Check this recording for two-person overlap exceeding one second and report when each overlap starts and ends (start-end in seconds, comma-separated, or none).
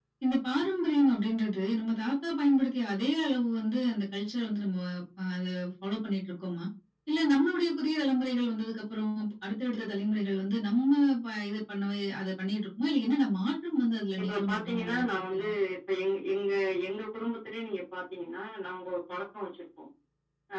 14.2-15.5